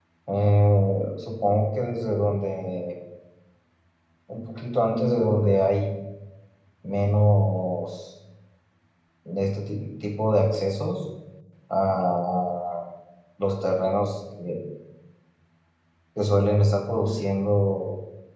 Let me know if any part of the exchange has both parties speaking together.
No

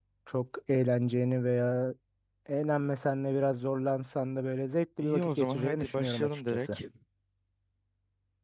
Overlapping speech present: Yes, from 5.0 s

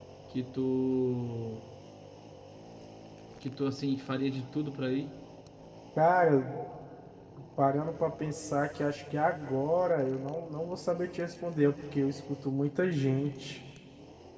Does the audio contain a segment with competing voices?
No

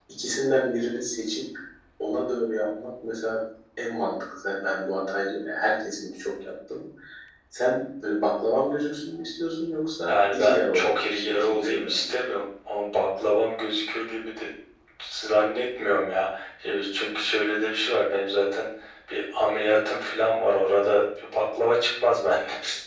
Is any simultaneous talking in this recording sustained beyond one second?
Yes, from 10.1 s

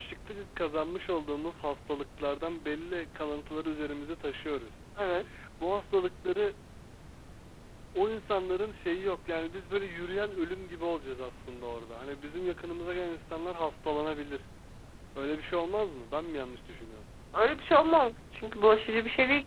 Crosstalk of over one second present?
No

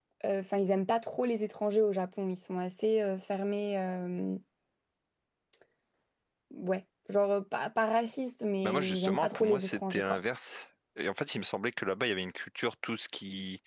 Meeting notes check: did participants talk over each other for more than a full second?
Yes, from 8.6 s

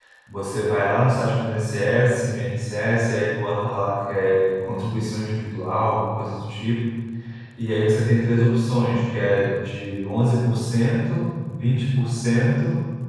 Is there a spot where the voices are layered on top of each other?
No

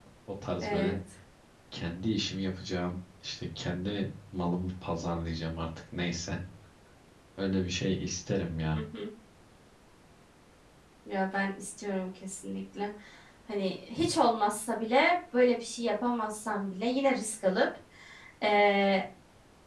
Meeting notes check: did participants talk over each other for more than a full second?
No

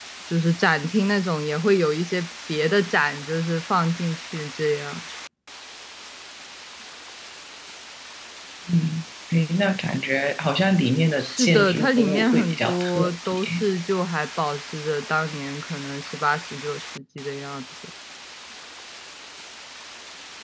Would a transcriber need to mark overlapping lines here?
Yes, from 11.2 s

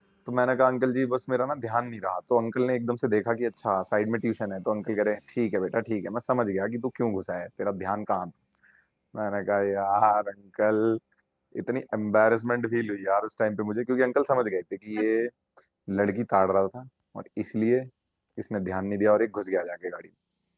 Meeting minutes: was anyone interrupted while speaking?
No

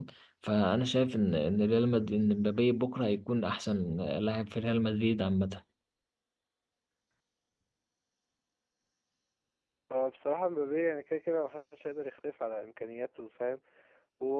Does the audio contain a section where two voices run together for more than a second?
No

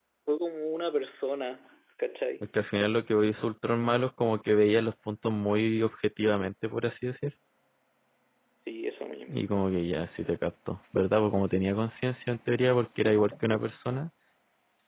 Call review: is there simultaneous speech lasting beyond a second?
No

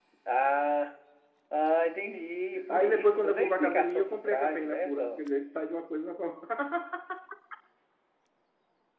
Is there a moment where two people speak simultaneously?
Yes, from 2.6 s

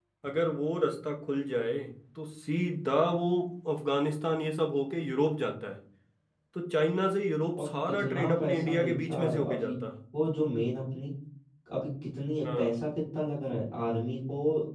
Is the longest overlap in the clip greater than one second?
Yes, from 7.6 s

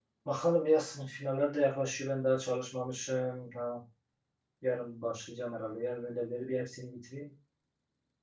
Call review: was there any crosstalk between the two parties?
No

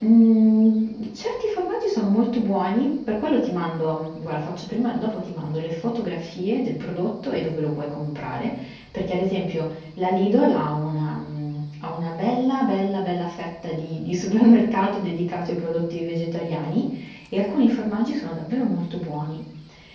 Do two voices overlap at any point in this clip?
No

